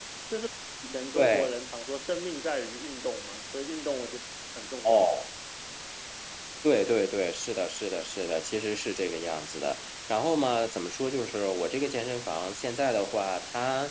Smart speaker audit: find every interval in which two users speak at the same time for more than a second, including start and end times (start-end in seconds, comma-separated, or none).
none